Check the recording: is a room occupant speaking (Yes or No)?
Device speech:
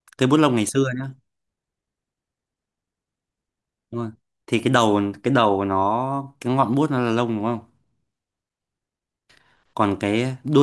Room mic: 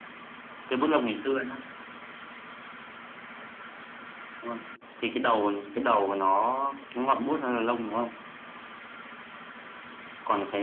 No